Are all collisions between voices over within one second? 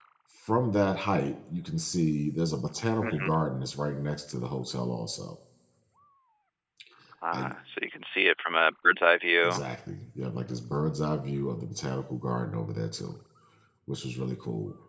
Yes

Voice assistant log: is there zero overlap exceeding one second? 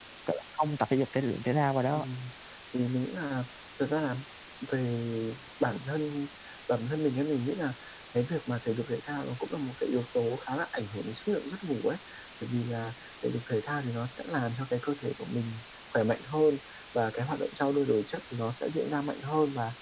Yes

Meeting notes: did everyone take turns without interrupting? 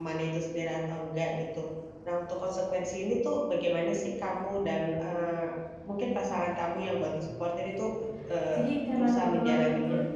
No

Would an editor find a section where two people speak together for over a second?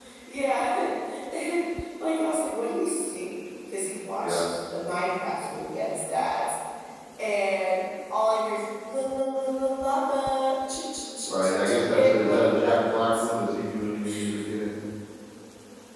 Yes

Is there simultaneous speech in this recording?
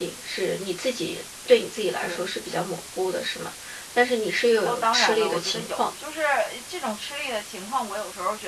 Yes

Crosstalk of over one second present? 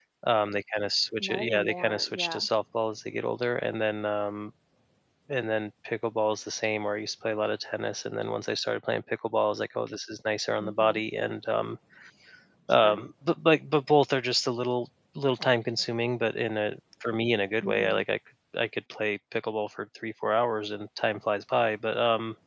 Yes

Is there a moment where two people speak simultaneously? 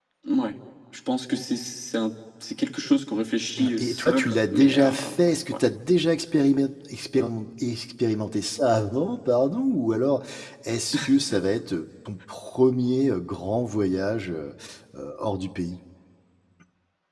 Yes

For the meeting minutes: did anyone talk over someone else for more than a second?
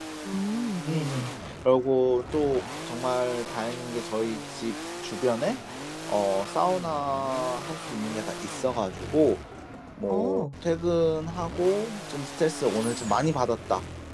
No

